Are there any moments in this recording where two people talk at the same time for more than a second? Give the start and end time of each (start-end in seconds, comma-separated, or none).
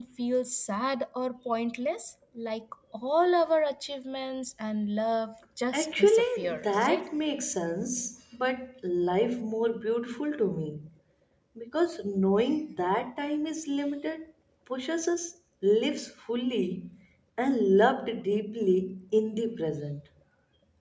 5.7-7.1